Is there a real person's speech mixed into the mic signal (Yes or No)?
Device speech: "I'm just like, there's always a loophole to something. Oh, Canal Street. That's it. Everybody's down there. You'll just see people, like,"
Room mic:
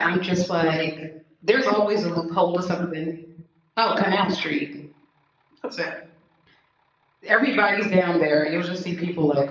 No